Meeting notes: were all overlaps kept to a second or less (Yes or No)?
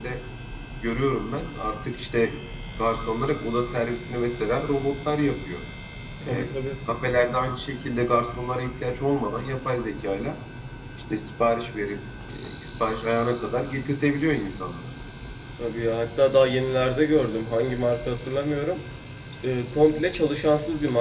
Yes